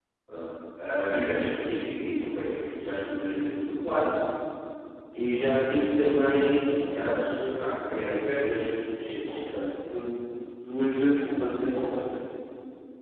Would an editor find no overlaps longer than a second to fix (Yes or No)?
Yes